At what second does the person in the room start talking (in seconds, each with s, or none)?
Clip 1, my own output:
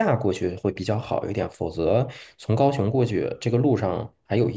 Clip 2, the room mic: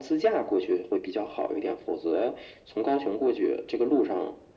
none